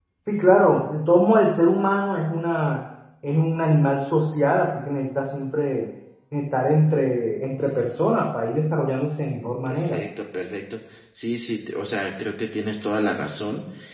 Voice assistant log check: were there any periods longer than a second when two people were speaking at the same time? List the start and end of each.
none

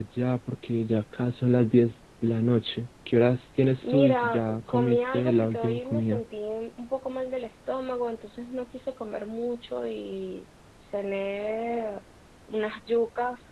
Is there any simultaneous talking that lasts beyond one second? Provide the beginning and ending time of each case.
3.8-6.2

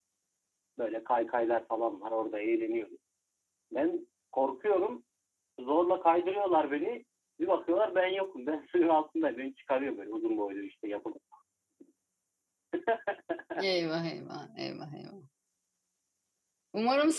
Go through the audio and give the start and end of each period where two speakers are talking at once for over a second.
none

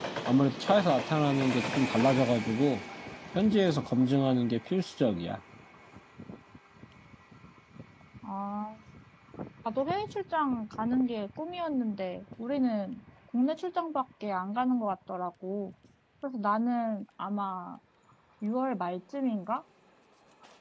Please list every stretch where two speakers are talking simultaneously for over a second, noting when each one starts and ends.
none

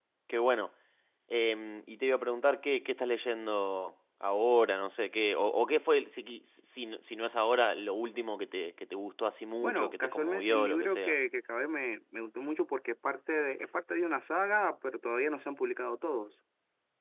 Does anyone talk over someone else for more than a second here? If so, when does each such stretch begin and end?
9.6-11.2

